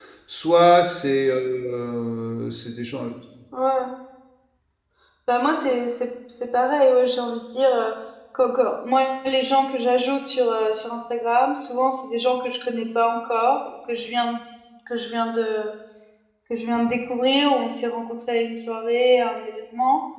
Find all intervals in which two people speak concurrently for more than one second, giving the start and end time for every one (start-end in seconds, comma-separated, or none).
none